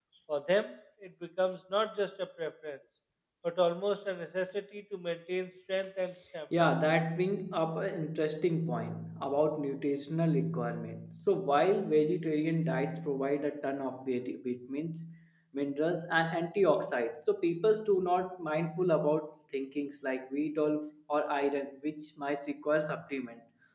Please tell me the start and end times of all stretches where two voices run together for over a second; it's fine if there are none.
none

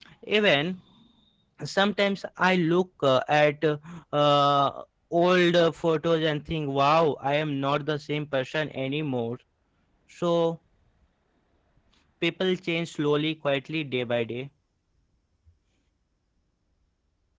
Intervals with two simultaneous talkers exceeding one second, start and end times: none

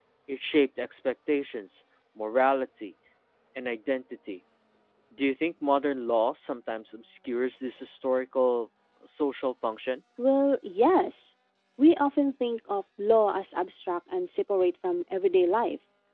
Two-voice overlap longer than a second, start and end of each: none

